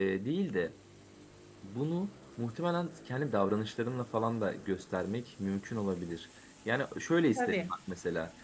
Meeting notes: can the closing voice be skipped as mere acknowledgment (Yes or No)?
Yes